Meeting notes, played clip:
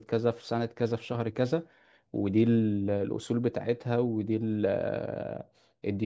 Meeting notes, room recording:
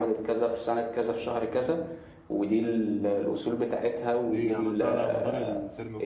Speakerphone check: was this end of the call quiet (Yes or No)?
No